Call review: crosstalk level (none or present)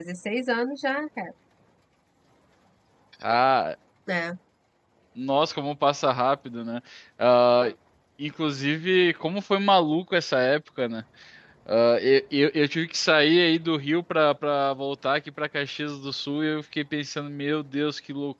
none